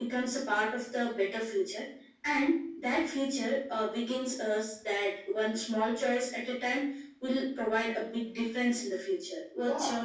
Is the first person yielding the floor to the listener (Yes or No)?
Yes